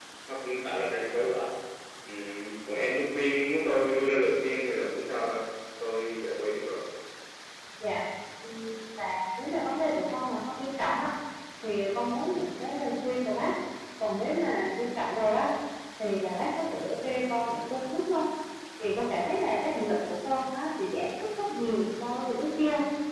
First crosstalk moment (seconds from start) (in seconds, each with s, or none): none